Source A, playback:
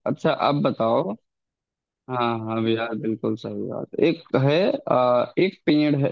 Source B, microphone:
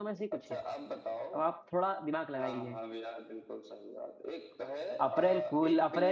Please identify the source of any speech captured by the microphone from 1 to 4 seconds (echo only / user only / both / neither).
both